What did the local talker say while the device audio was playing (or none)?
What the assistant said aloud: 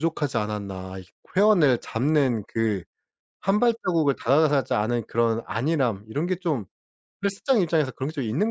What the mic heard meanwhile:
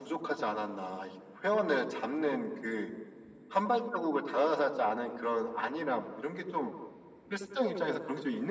none